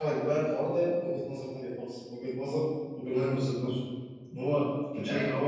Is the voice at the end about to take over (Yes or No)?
No